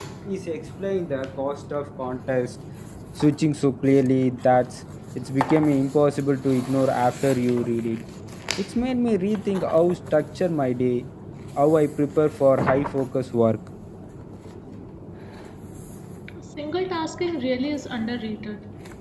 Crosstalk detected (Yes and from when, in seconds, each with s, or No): No